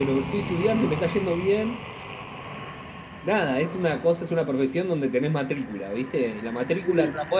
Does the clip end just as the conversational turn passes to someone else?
No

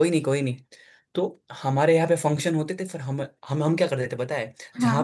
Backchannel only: Yes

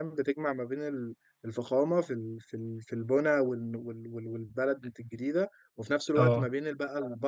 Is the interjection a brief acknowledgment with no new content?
Yes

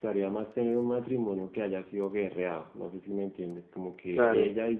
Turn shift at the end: No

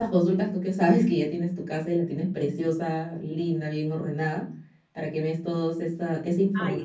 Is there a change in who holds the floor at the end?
Yes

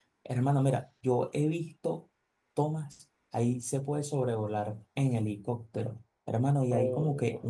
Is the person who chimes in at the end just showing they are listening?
Yes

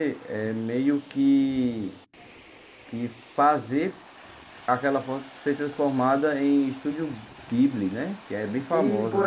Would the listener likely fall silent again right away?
No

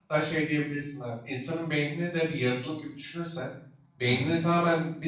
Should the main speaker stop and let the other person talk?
No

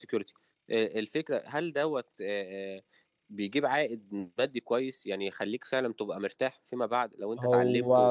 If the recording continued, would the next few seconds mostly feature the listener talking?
No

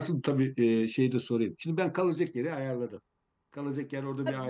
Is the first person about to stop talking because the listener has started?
Yes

